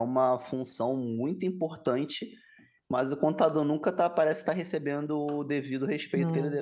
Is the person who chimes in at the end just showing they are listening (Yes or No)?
Yes